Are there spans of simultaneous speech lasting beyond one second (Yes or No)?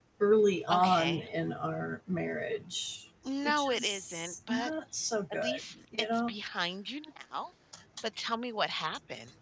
Yes